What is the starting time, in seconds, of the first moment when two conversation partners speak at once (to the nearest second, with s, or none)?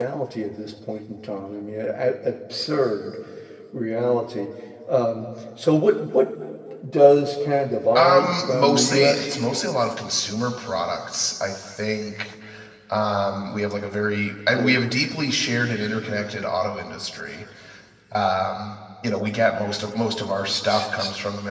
8 s